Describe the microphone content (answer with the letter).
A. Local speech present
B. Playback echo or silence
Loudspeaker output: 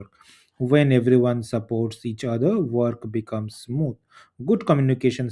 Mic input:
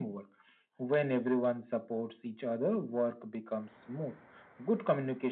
B